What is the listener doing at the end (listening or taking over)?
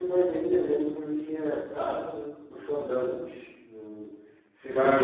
taking over